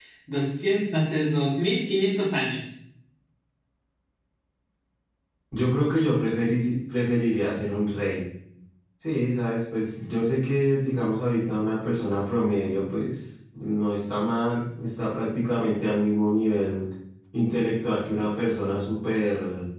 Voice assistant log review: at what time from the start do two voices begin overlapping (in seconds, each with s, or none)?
none